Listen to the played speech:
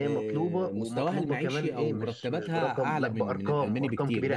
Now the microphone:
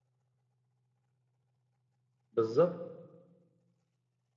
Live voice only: بالظبط

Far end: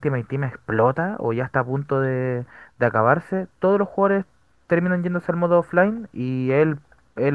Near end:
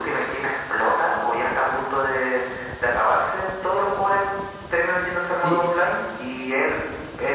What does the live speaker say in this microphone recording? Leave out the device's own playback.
Y- y-

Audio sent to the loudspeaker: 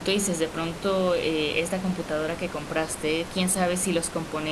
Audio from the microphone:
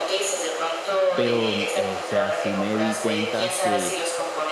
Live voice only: pero, eh, o sea, sí me di cuenta que

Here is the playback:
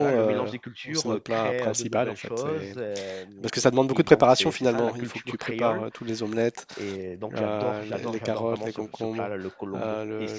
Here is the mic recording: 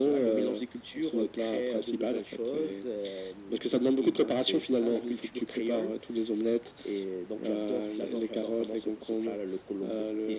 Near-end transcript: none

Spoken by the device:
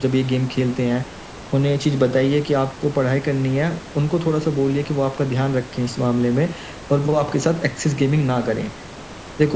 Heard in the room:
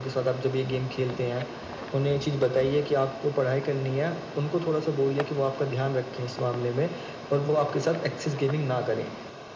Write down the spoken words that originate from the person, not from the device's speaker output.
none

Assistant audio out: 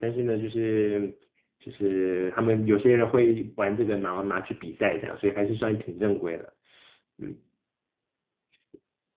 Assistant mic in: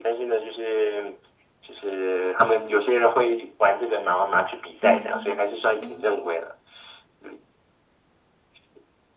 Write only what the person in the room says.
嗯。嗯

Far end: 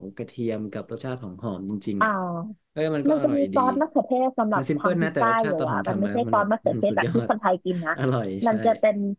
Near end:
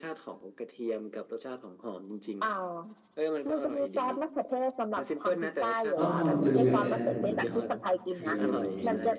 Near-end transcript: อ๋อพอจะมีแบบแนะนำผมไหมครับสักเมนูสองเมนู

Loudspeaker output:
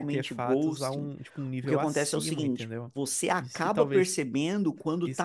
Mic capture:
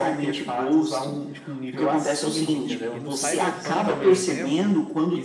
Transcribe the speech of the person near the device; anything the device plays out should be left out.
E no Cyberpunk, por exemplo,

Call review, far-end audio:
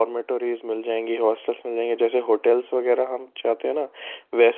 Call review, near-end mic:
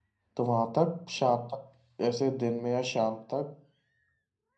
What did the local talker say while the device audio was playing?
तो वहाँ तक शाम तक ऐसे दिन में या शाम तक

